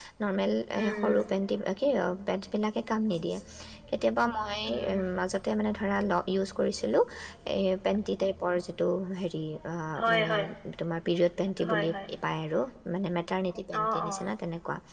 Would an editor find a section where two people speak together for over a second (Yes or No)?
No